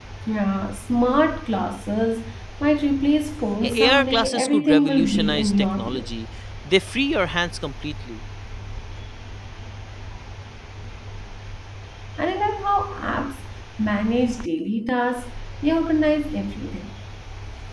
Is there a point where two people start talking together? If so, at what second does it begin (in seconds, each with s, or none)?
3.6 s